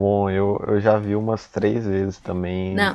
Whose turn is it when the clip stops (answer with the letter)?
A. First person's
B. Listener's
B